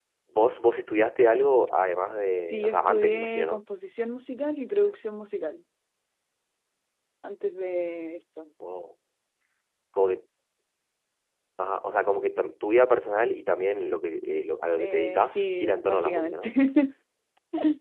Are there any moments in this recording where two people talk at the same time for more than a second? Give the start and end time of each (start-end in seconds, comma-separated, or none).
2.4-3.6, 14.8-16.5